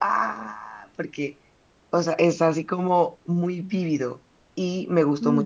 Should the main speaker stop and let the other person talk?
No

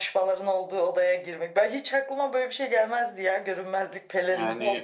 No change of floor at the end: No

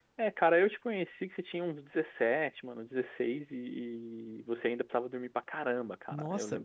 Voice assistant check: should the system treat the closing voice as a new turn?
Yes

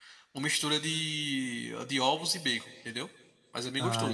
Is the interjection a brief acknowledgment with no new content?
No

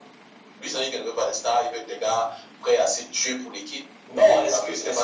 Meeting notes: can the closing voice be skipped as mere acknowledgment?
No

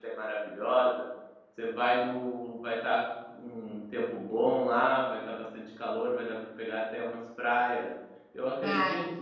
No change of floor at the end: Yes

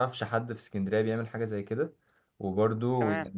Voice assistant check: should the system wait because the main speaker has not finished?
Yes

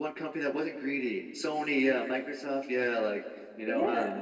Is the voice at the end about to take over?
Yes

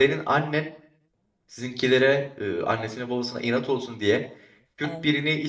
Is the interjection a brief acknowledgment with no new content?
Yes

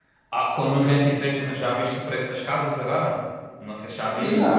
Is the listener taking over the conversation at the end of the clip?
Yes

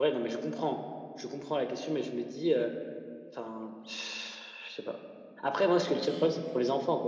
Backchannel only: Yes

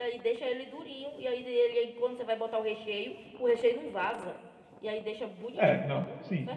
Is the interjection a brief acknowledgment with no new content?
No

